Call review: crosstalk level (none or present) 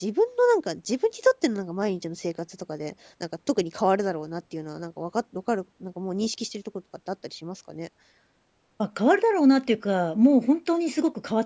none